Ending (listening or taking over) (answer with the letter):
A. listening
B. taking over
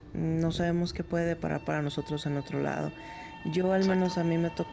A